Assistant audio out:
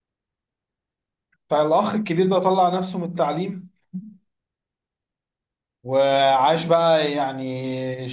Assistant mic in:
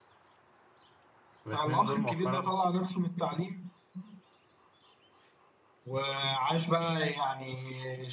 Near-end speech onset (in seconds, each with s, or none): 1.5 s